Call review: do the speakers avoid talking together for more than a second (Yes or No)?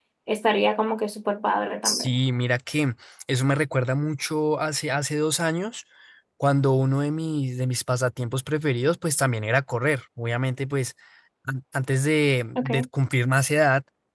Yes